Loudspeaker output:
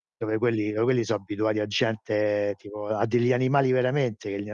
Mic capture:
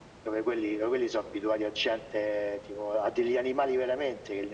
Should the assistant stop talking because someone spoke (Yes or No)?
No